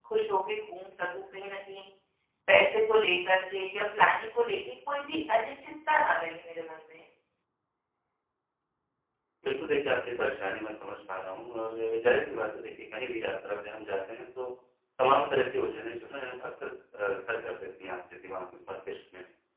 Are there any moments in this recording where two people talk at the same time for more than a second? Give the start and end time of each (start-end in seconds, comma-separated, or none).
none